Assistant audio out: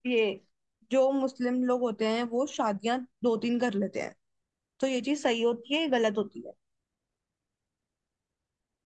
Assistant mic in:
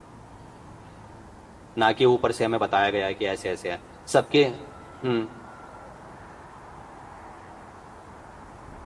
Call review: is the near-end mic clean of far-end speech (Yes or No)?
Yes